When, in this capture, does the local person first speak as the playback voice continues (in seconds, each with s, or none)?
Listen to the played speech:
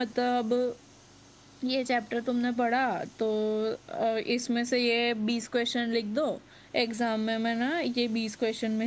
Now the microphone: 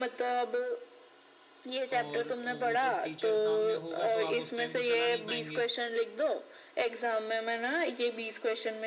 2.0 s